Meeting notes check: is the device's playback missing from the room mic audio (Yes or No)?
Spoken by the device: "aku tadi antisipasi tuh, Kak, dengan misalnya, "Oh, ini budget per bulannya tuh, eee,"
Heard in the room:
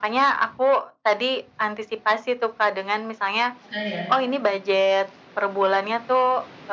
No